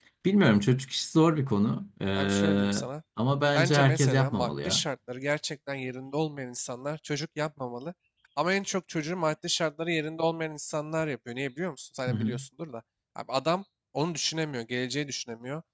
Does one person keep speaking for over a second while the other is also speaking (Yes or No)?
Yes